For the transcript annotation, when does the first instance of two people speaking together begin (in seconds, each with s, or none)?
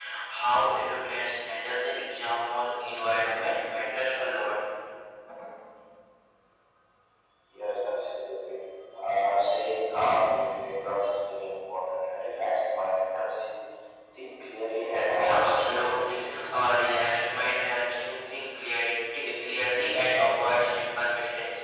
15.0 s